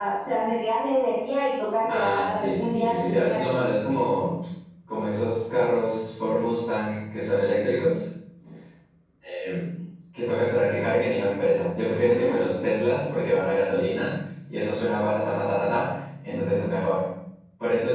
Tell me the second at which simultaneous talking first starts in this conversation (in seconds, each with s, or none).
1.9 s